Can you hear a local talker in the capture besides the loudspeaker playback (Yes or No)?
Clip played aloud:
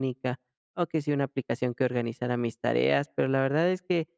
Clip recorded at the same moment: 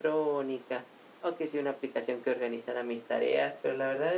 No